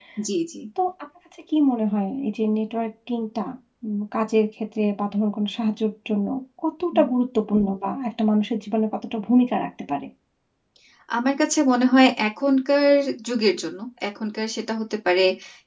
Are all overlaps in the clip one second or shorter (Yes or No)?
Yes